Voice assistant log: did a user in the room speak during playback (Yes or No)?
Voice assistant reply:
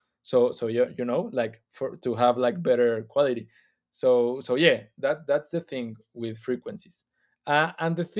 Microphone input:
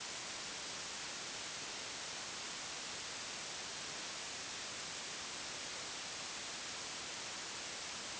No